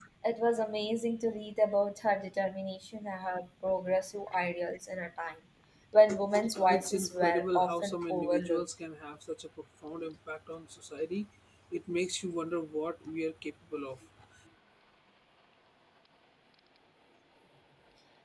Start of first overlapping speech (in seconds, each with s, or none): 6.3 s